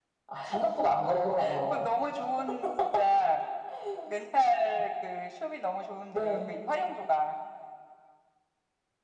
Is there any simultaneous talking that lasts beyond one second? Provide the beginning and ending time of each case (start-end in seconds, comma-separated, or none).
none